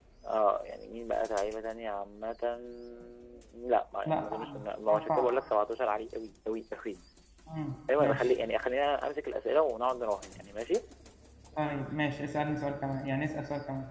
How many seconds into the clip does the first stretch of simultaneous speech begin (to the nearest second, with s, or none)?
4 s